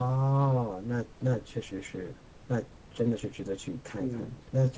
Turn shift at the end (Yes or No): Yes